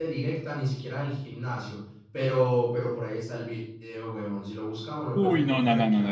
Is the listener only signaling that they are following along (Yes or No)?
No